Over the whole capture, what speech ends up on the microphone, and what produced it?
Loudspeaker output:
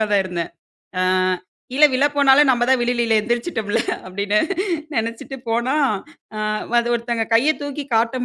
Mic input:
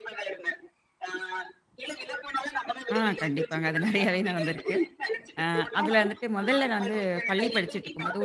both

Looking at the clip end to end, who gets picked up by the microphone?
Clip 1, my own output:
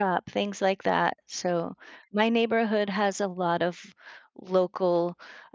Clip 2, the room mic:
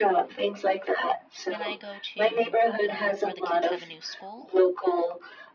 both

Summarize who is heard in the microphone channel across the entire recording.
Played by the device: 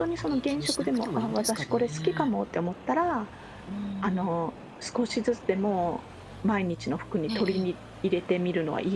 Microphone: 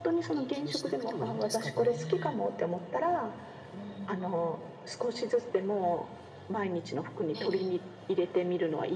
echo only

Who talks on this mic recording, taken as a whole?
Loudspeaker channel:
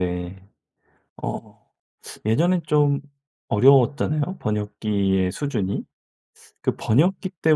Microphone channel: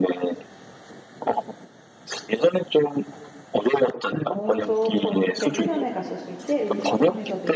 both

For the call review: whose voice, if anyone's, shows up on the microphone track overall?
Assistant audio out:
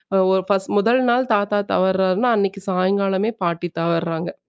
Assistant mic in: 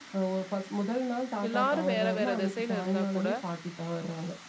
both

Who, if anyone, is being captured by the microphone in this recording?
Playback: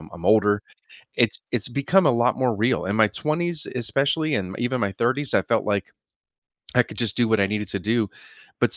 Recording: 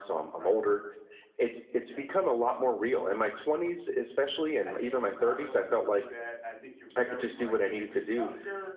both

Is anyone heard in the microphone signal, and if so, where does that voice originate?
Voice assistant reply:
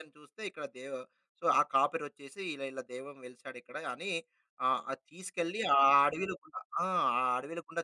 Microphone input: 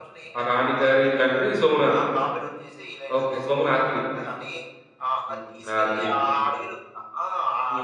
both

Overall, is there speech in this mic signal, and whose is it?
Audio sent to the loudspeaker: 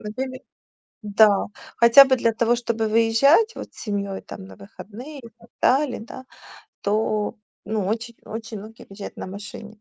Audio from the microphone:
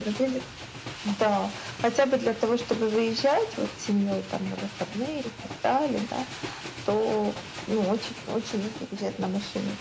echo only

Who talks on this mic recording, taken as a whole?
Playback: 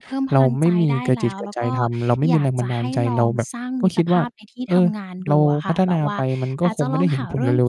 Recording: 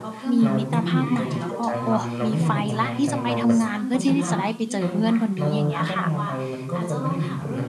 both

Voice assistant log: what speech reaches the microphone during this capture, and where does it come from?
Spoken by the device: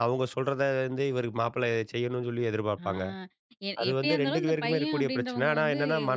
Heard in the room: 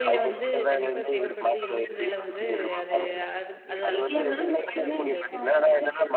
both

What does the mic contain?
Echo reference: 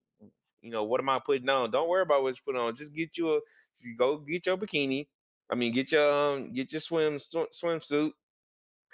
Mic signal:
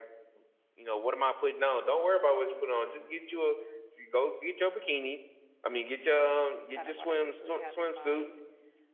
both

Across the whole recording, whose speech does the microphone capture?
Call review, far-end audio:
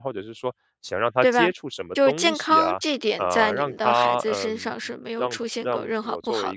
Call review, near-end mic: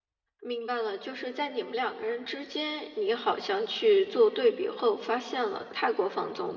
user only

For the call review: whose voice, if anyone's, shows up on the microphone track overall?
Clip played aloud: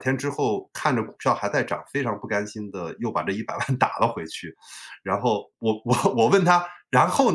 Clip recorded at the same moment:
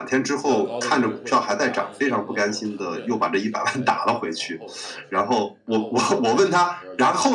both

